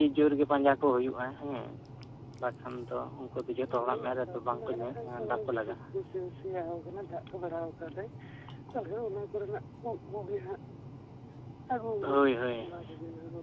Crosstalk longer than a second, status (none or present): present